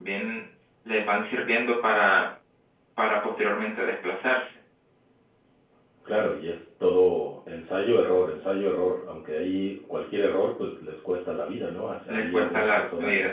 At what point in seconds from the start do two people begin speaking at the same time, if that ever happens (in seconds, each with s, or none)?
12.1 s